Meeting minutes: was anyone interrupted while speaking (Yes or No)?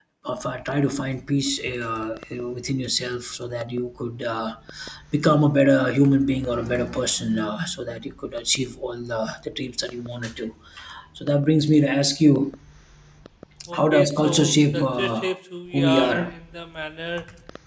Yes